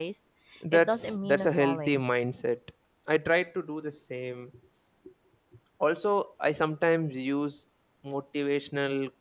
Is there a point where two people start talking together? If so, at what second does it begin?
0.7 s

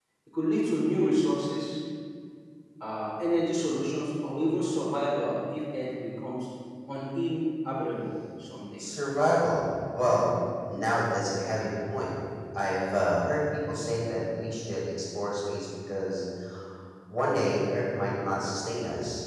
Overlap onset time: none

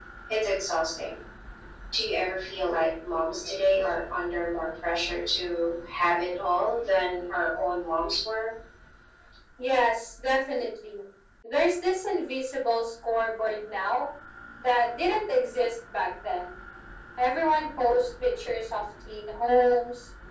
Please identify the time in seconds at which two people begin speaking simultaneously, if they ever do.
none

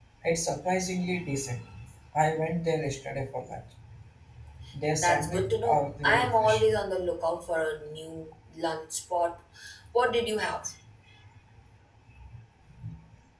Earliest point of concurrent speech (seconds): 5.0 s

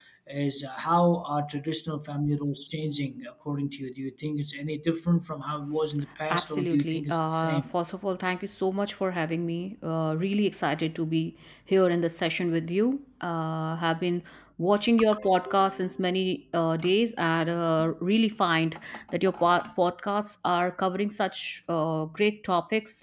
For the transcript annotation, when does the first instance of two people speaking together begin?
6.3 s

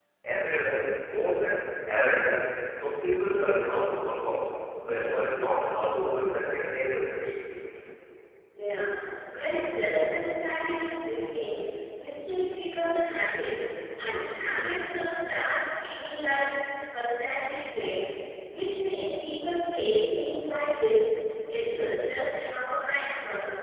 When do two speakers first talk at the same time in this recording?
none

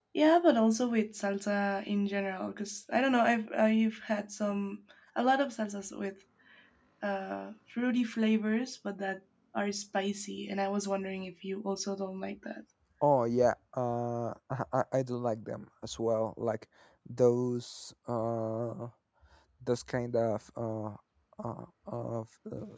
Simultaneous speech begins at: none

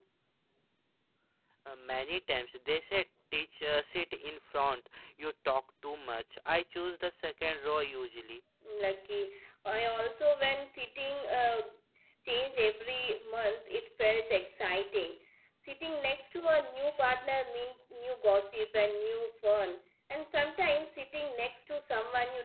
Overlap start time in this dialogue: none

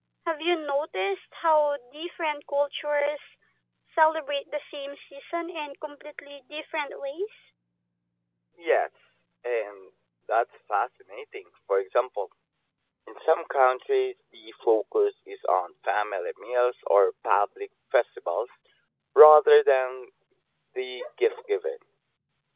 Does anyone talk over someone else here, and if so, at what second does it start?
none

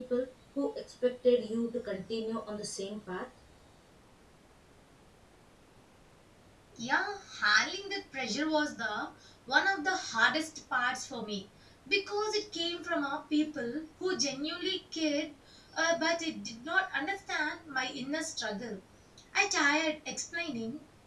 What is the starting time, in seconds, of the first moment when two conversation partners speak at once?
none

